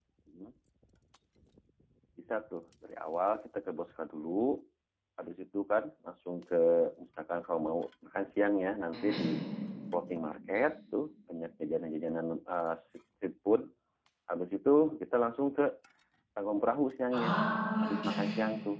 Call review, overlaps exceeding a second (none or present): none